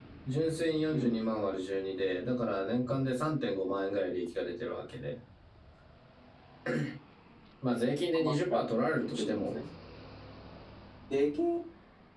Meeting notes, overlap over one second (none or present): none